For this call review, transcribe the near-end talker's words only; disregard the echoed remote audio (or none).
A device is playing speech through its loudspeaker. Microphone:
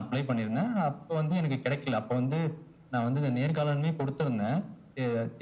none